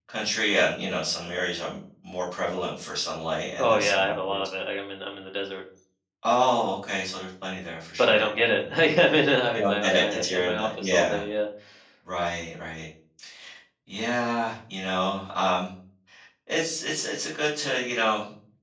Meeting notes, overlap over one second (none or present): present